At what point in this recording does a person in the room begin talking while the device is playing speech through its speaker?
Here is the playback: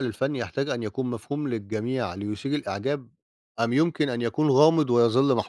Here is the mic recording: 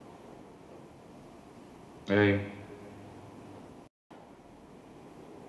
2.1 s

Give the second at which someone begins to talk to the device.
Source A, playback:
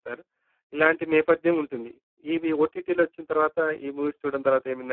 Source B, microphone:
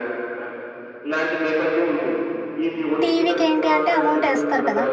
3.0 s

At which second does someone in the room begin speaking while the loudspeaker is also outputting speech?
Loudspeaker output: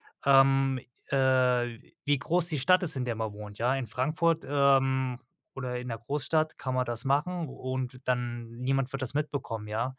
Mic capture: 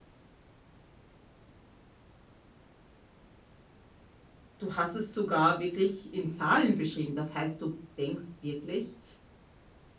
4.6 s

